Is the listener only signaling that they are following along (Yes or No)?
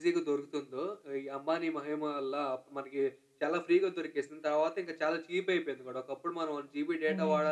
No